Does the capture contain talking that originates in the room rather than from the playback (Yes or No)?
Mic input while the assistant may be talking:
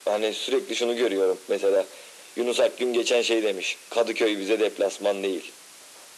No